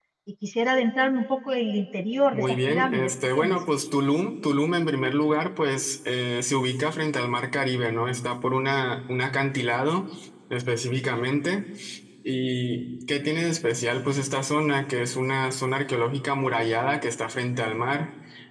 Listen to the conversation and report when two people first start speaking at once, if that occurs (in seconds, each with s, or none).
2.3 s